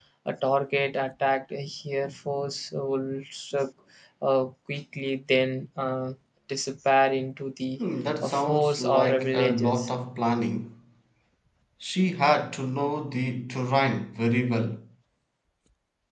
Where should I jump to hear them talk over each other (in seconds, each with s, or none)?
8.2 s